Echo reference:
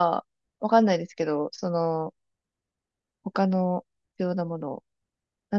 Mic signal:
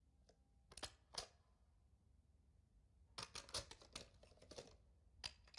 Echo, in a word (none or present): none